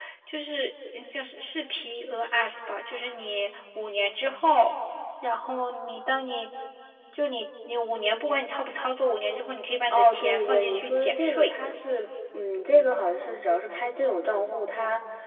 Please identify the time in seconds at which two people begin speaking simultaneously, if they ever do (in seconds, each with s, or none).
9.9 s